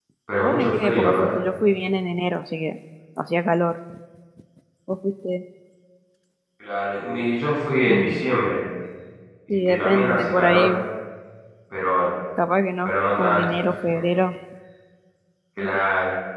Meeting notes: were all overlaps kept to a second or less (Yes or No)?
No